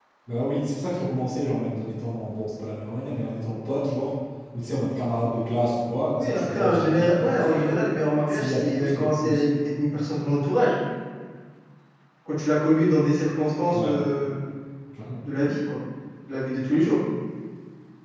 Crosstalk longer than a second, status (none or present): present